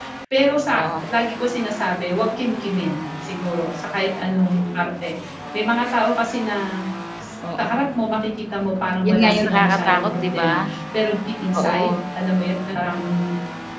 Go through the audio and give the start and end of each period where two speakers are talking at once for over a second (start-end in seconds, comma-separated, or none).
9.0-10.7